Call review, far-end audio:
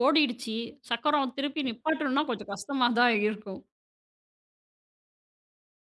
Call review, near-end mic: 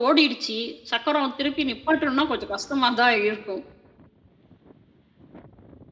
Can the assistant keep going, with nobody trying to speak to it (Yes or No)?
Yes